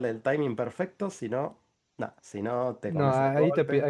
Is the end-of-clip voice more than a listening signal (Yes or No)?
Yes